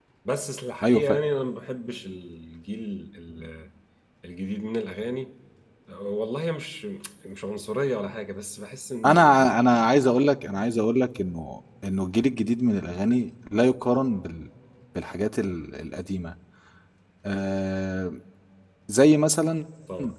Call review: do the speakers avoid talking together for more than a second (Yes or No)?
Yes